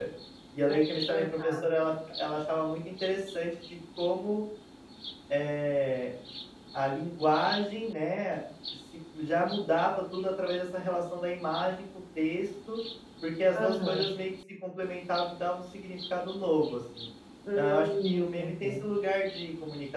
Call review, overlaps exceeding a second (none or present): present